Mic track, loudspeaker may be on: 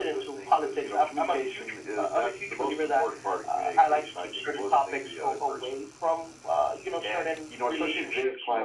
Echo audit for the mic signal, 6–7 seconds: echo only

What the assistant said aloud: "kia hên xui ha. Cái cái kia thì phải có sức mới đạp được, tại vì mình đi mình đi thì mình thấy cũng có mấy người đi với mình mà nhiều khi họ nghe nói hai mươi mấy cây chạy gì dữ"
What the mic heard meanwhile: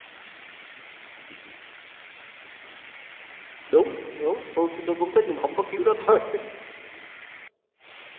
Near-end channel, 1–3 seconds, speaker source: neither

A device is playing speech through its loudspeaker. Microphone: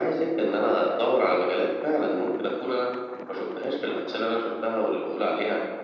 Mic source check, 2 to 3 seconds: echo only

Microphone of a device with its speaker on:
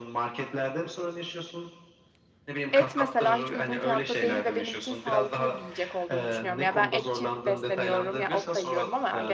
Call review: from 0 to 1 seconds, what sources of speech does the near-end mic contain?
echo only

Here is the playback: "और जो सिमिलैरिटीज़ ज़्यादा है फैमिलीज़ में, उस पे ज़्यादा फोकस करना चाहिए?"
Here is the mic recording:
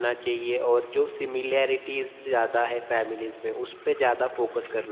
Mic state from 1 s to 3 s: echo only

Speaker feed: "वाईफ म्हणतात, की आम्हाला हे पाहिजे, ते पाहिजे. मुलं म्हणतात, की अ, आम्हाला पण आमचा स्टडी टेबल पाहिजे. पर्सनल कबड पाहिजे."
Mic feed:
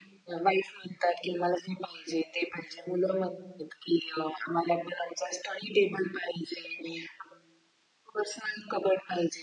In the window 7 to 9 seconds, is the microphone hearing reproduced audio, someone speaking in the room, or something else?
echo only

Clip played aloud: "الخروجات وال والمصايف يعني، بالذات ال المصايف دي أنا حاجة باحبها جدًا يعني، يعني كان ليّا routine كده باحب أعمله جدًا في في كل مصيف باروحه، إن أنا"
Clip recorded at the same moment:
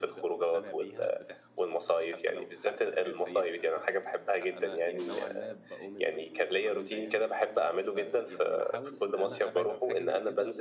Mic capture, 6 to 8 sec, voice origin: both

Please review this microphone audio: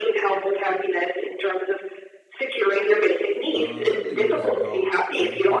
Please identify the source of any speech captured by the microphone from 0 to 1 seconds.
echo only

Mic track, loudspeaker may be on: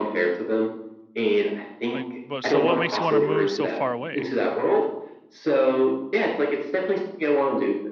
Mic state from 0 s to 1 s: echo only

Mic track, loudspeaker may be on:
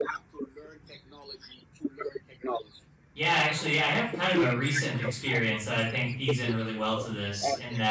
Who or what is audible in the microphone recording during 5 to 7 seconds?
both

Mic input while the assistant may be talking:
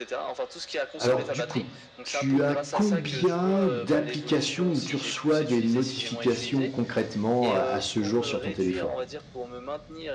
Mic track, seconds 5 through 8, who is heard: both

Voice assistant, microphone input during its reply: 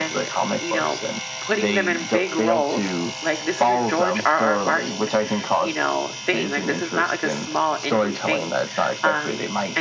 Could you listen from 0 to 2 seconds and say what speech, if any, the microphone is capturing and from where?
both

